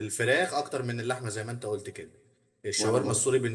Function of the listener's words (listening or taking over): listening